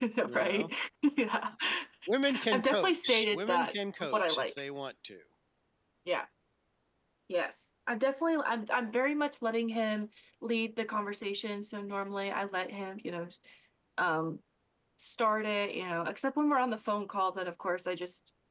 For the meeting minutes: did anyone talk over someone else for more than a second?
Yes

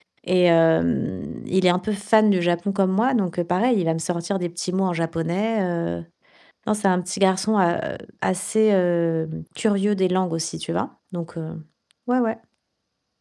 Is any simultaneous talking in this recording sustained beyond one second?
No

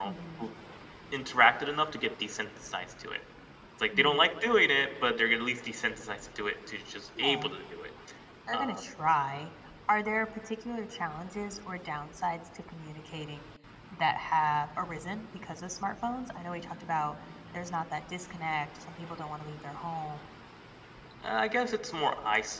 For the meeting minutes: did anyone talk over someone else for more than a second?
No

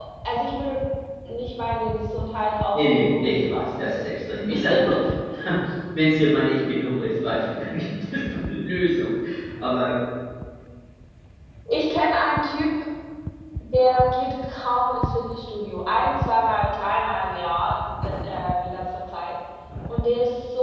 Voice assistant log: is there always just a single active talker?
No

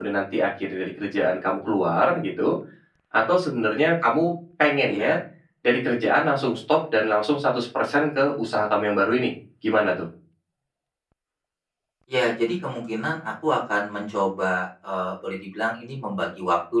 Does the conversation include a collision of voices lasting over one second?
No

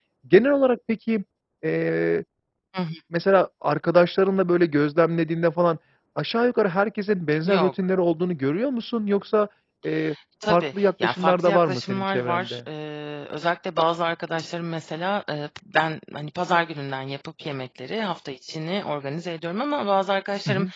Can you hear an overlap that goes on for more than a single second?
Yes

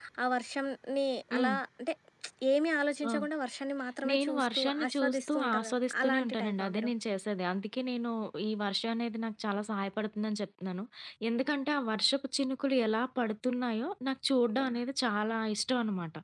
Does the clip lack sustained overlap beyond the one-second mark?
No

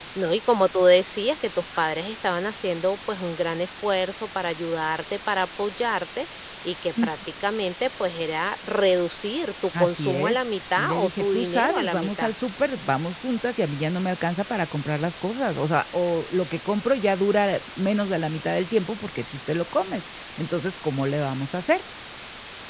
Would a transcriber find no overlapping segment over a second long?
No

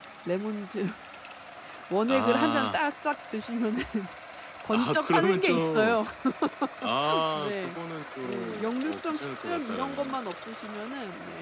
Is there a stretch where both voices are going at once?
Yes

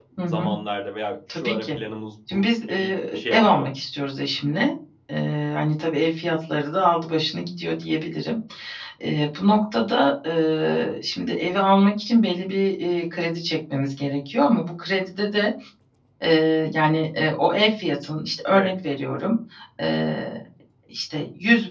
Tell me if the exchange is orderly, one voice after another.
No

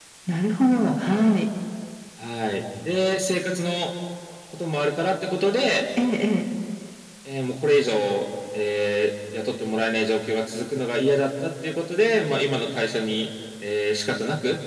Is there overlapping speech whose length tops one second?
No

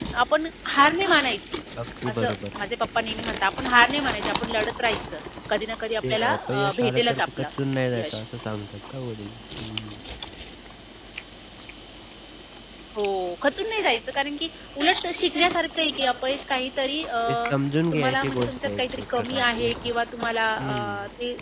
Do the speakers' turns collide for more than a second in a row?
Yes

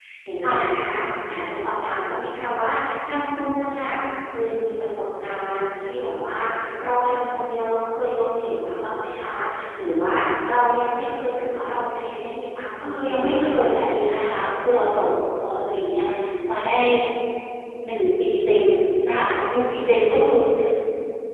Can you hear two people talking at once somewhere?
Yes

